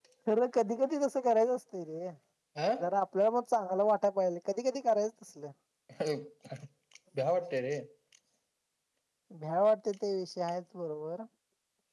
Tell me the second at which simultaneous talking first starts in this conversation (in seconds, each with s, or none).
none